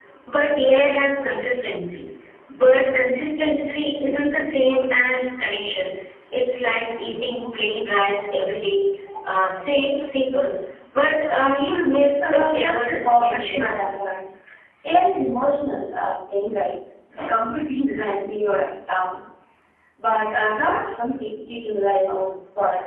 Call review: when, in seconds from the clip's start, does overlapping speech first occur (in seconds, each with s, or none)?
12.1 s